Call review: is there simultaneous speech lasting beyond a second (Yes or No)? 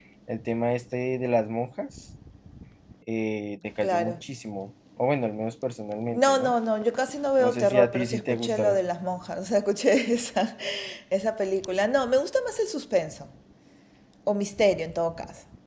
Yes